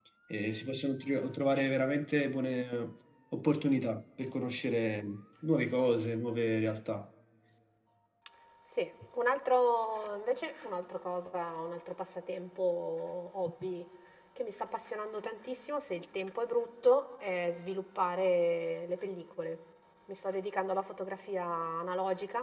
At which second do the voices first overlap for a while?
none

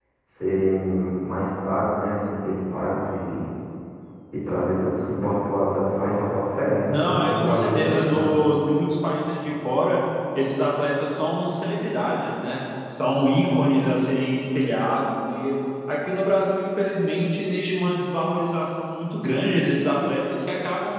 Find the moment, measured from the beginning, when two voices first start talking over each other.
7 s

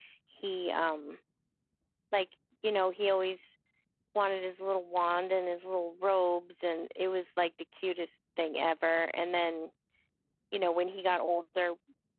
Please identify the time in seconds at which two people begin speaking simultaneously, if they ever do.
none

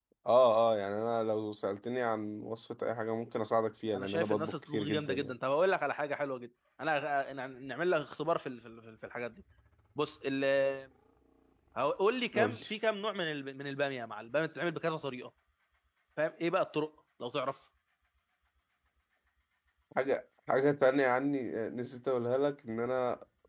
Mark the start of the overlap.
4 s

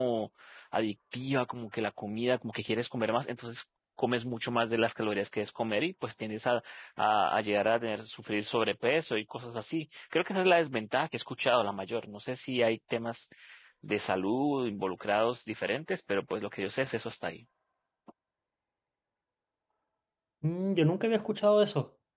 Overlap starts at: none

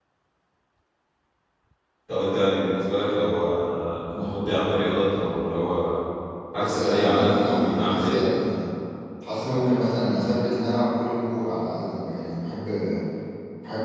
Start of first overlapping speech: 7 s

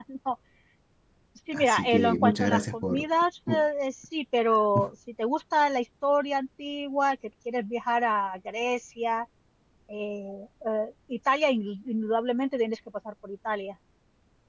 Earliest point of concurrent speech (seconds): 2 s

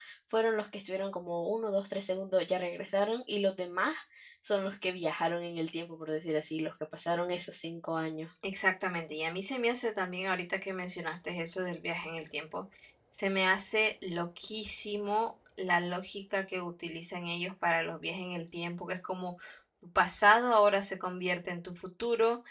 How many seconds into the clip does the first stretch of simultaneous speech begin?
none

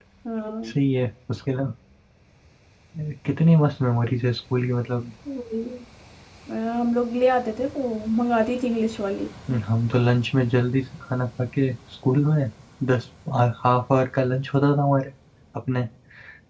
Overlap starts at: none

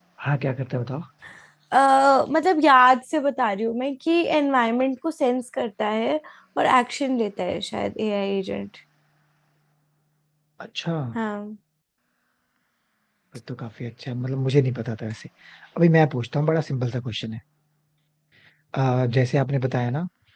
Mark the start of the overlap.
none

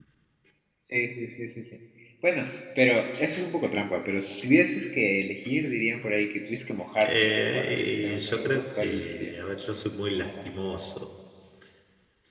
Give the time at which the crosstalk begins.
7 s

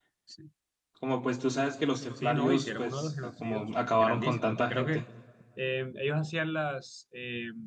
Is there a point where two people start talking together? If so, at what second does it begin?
2 s

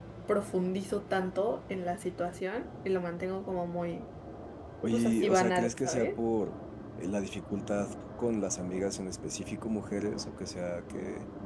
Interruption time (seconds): 5 s

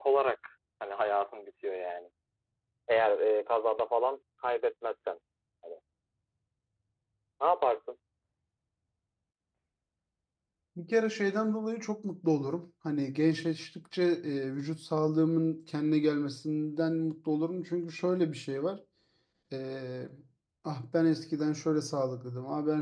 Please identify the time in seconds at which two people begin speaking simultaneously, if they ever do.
none

